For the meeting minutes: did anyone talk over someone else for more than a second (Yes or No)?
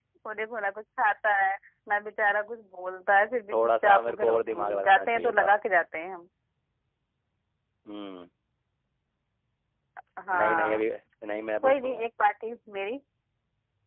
Yes